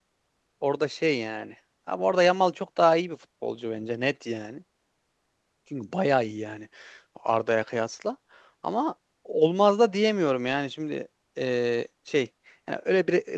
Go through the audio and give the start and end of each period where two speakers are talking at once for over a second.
none

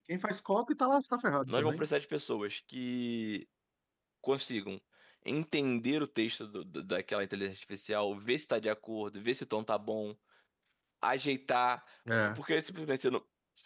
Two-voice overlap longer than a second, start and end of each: none

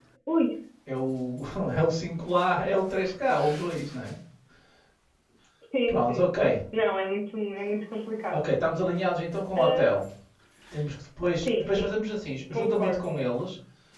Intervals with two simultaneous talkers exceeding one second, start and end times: none

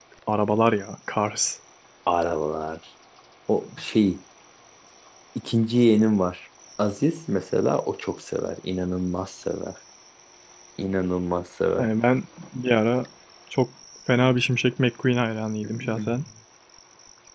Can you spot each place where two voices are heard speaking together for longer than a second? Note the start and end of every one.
none

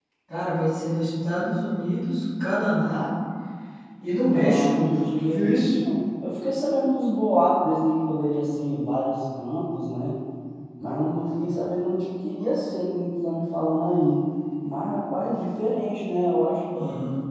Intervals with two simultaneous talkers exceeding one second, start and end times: 4.2-5.8

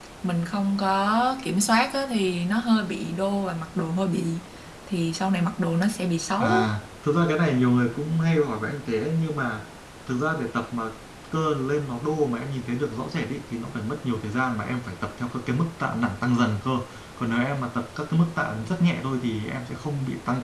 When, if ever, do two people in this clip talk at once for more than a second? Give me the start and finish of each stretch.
none

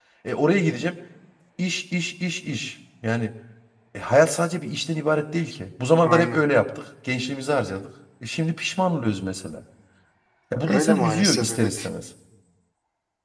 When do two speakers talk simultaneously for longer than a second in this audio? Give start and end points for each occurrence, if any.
10.6-11.9

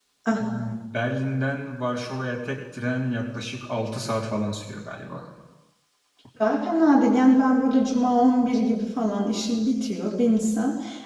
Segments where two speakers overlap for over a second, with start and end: none

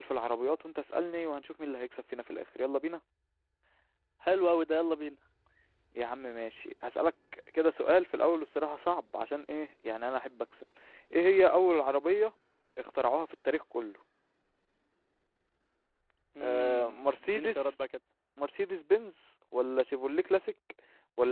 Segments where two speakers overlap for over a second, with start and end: 16.4-17.7

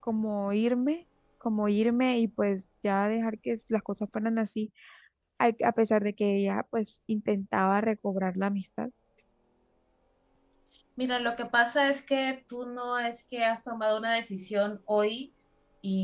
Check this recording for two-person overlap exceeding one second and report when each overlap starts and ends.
none

